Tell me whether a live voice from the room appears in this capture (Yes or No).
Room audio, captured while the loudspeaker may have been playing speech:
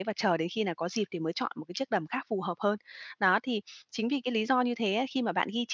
Yes